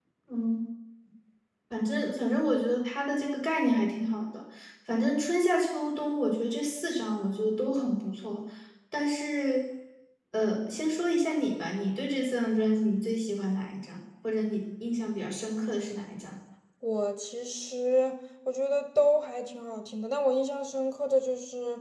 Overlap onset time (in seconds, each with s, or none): none